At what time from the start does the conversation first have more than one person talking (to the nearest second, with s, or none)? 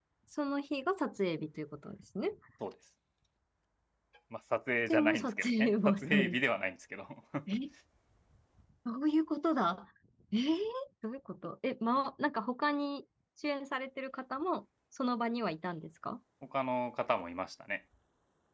5 s